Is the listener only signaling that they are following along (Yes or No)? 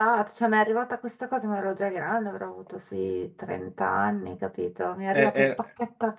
Yes